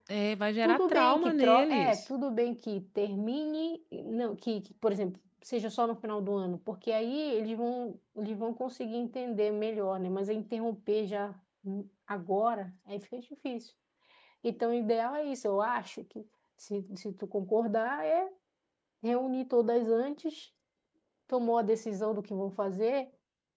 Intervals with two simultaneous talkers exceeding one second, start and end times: 0.6-2.0

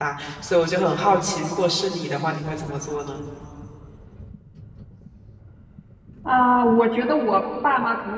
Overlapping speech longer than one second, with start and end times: none

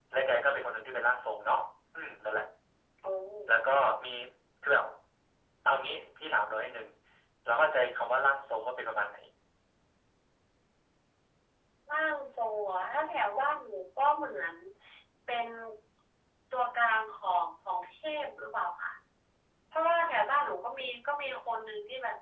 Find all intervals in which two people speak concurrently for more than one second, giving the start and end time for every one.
none

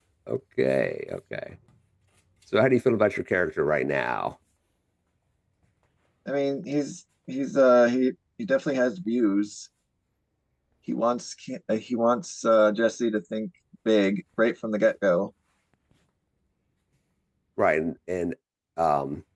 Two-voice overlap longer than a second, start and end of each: none

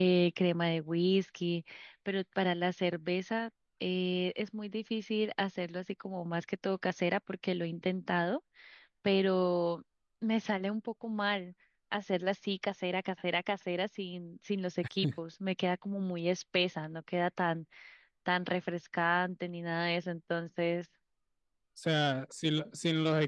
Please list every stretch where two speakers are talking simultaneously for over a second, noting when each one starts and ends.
none

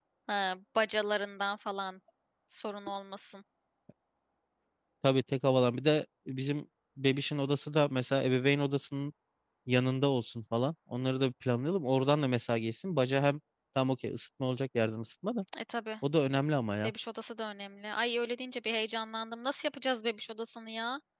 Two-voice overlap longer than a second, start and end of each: none

